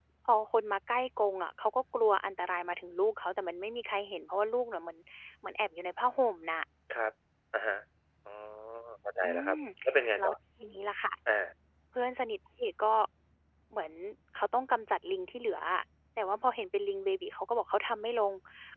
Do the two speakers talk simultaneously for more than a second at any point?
No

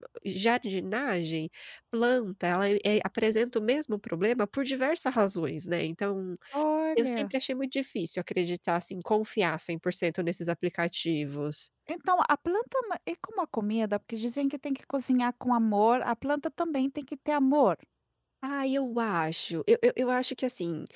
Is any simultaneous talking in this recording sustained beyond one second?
No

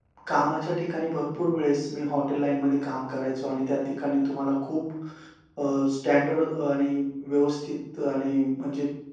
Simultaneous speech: No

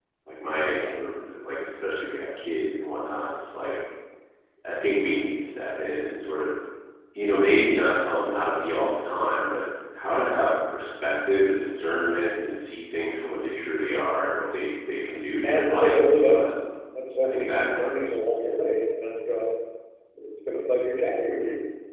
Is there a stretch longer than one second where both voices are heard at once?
Yes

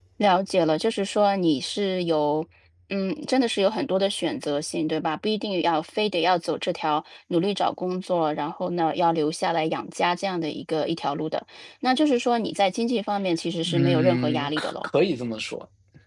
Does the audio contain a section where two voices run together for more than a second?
Yes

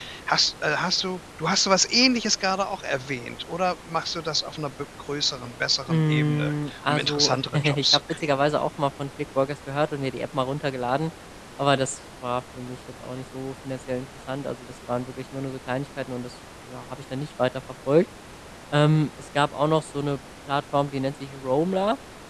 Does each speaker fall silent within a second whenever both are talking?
No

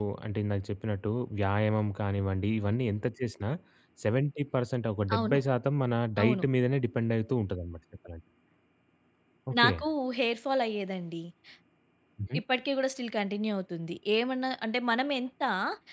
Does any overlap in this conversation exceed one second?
No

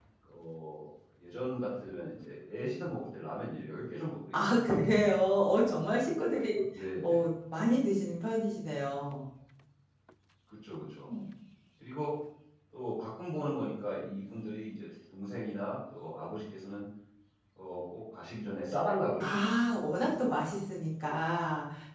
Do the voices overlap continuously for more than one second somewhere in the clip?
No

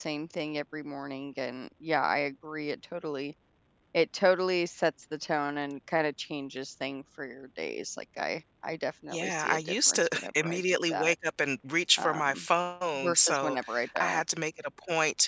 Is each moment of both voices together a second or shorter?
No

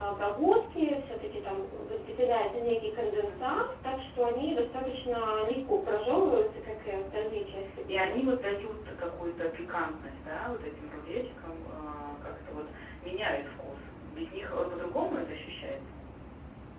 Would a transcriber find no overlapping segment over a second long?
Yes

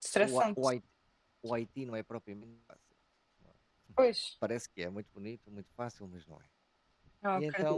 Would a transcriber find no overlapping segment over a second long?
Yes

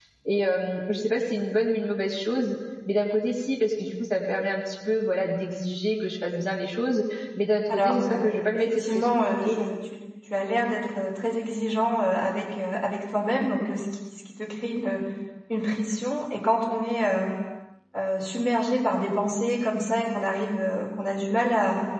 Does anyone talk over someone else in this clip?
Yes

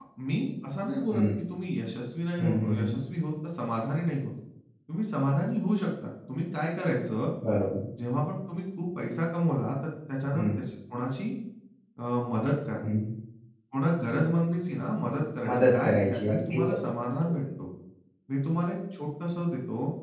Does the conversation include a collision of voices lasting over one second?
Yes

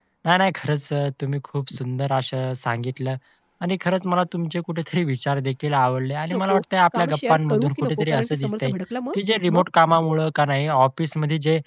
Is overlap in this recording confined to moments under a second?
No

